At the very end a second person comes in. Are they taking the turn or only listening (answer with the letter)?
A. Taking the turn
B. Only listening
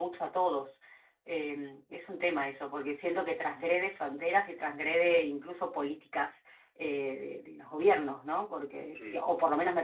B